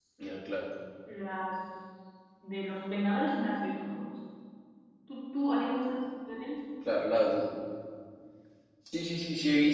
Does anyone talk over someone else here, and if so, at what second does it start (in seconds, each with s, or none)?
none